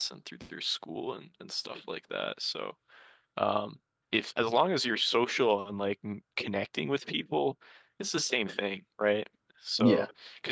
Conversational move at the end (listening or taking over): listening